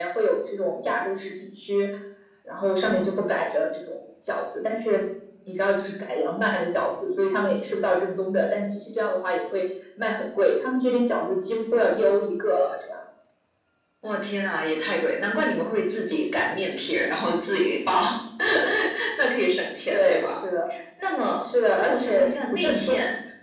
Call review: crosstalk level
present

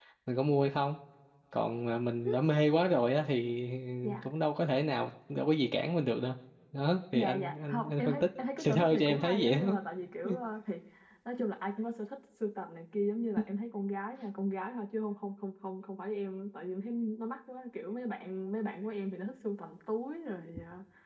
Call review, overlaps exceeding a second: present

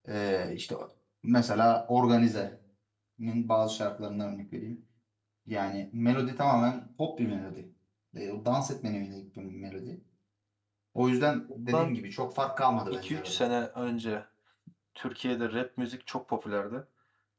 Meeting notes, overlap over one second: none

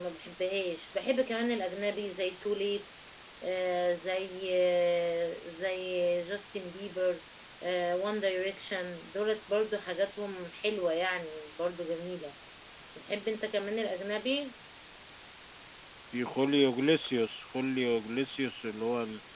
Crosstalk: none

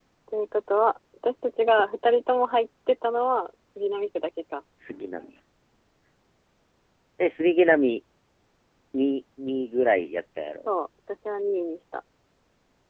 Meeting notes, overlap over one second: none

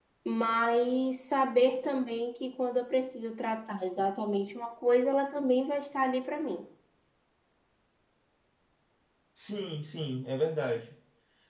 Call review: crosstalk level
none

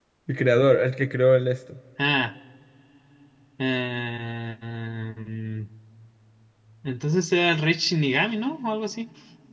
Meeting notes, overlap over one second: none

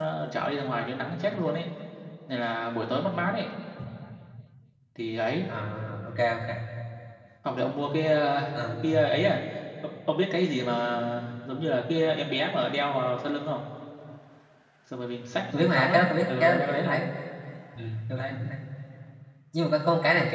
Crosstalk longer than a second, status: present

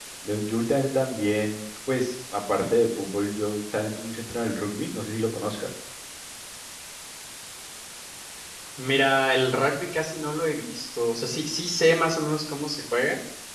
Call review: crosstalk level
none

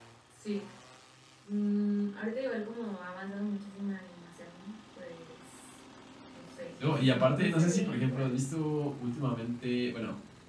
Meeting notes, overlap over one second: present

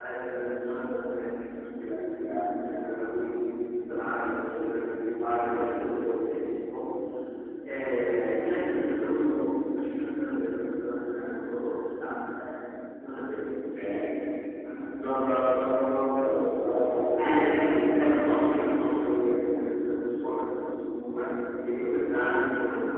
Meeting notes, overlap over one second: present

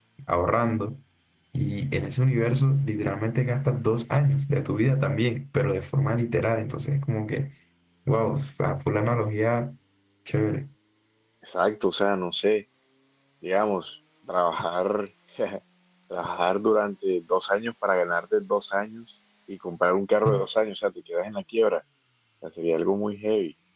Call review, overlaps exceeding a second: none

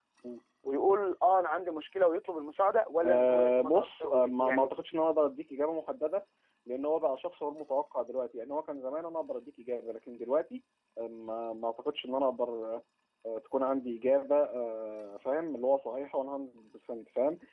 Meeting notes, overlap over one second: present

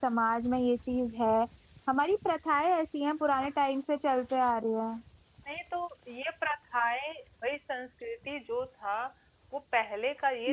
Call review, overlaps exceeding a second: none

